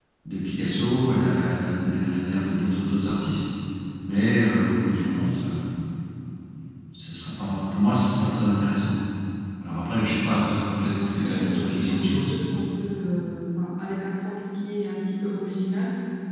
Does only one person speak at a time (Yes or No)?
No